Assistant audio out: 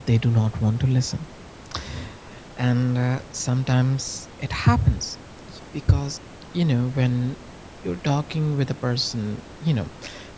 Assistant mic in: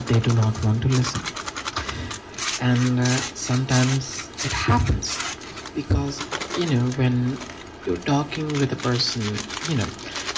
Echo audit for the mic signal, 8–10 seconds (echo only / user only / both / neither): echo only